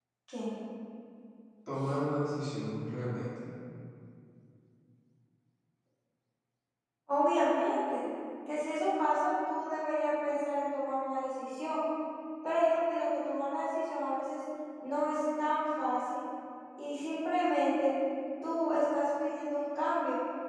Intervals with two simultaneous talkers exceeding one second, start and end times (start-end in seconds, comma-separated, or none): none